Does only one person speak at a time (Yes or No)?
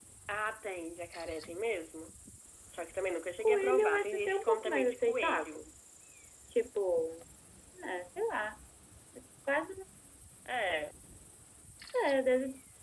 No